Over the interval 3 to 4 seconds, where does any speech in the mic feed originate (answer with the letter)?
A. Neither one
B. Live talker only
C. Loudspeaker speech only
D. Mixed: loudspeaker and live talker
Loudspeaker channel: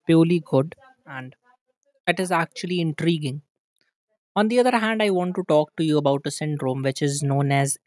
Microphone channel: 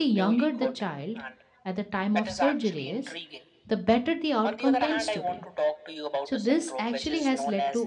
D